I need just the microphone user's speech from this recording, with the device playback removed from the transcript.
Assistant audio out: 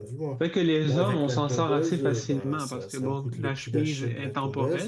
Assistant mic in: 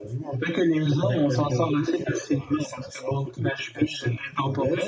none

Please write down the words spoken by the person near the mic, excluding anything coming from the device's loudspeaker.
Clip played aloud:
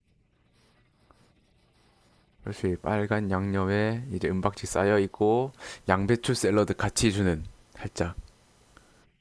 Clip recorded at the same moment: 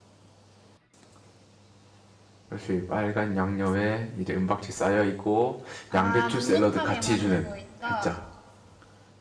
아, 눅눅하게 만들고 있다.

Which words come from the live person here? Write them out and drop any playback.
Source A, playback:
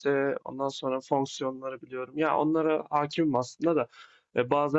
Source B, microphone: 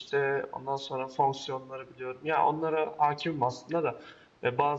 none

